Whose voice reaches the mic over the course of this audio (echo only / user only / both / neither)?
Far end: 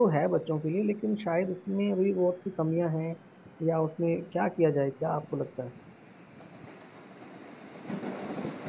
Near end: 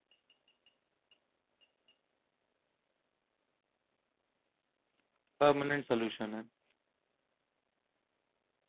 user only